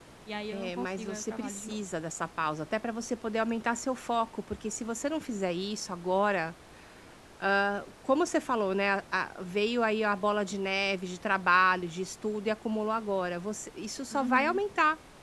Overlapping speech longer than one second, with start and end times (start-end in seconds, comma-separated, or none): 0.5-1.8